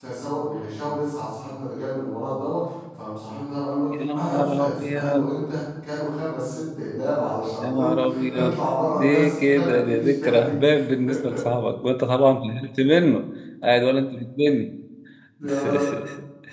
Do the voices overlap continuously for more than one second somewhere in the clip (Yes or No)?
Yes